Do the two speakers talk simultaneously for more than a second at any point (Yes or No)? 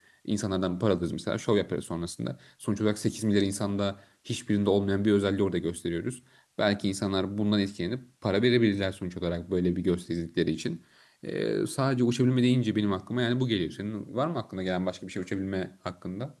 No